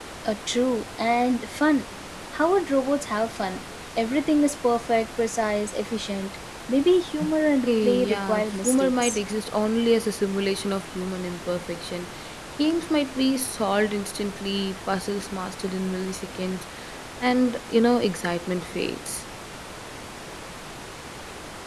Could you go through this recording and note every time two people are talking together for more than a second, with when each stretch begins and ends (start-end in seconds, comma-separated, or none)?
7.7-9.2